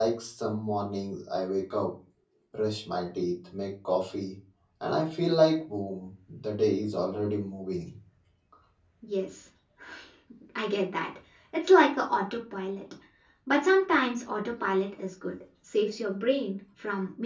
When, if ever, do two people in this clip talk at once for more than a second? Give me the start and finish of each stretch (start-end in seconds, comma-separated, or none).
none